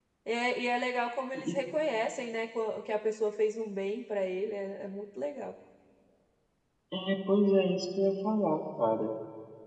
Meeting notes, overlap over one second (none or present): none